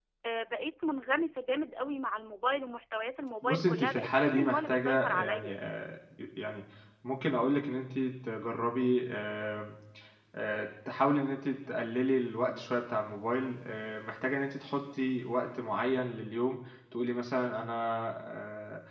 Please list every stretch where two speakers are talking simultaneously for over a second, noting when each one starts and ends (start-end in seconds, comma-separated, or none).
3.4-5.5